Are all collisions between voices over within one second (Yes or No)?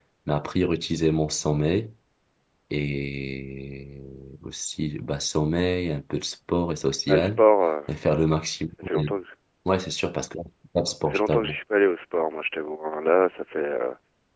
Yes